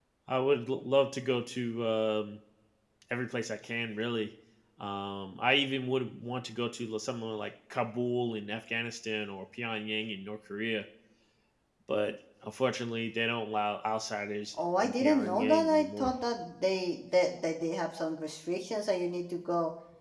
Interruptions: present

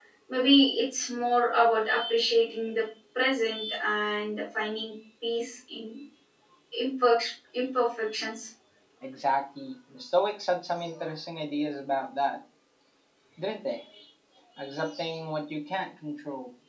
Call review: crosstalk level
none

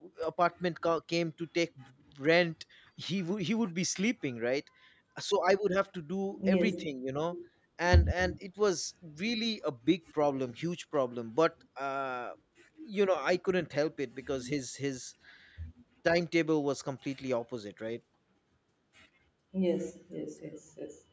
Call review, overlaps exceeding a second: none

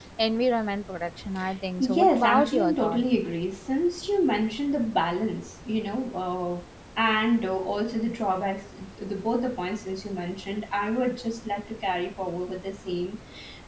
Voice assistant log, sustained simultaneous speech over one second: present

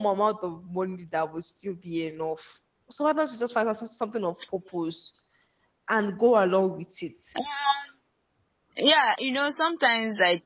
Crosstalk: none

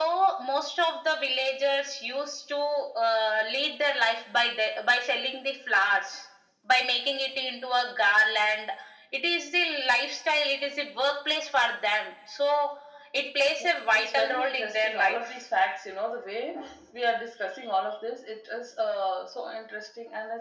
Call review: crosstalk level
present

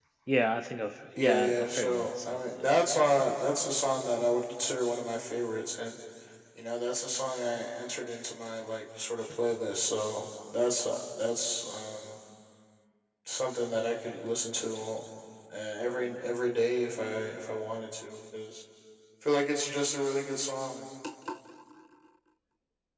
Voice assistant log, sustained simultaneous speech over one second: present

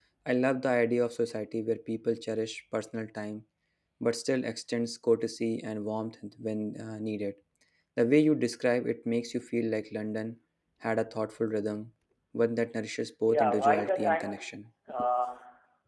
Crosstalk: present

